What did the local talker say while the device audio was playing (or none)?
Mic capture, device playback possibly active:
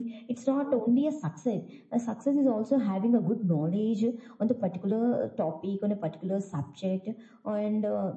none